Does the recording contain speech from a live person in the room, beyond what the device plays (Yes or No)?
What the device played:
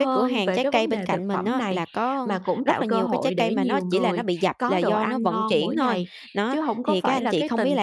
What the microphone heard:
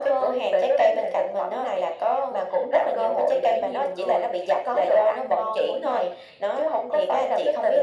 No